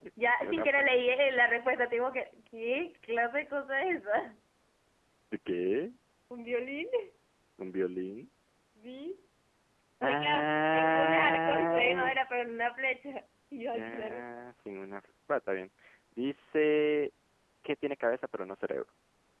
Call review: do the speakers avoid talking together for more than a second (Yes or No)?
No